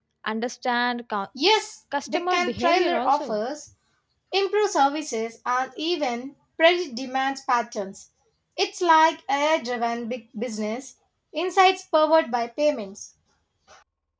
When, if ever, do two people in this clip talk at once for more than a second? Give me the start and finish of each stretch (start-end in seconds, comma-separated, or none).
2.1-3.4